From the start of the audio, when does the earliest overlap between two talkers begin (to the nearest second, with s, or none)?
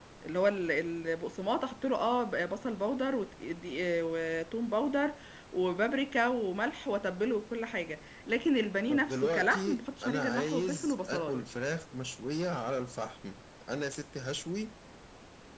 9 s